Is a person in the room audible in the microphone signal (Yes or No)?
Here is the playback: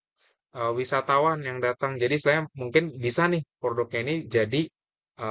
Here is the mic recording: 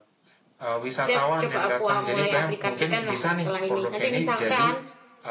Yes